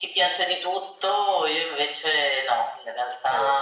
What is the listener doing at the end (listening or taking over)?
listening